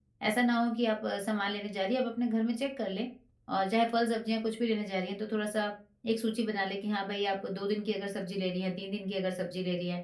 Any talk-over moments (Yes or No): No